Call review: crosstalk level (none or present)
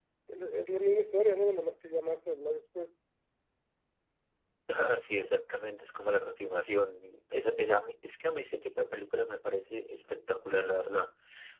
none